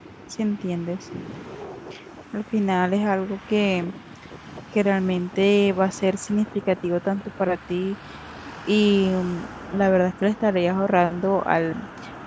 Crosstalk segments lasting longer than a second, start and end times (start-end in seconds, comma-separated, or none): none